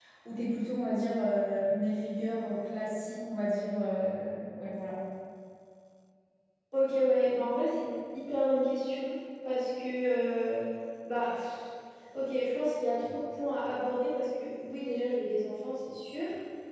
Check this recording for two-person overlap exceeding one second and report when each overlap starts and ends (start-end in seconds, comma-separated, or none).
none